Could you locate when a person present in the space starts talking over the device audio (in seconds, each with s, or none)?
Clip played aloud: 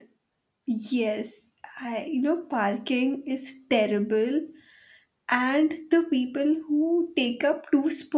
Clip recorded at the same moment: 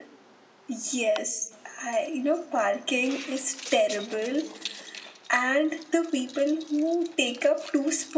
none